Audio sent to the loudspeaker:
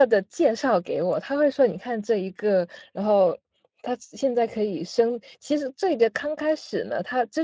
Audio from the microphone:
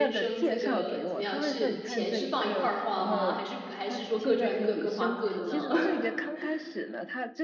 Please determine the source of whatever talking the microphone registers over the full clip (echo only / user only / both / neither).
both